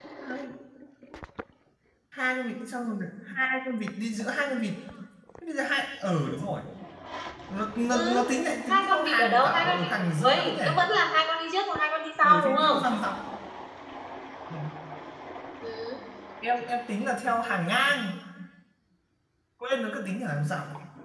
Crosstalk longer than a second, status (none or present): present